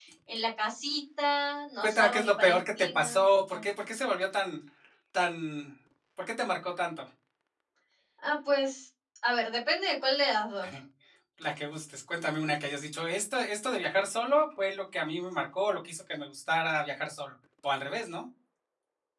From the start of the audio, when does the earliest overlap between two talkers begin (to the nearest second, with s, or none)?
2 s